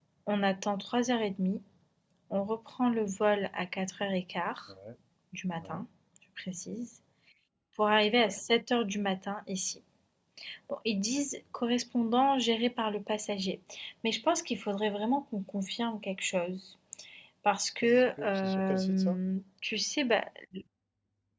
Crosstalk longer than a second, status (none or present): present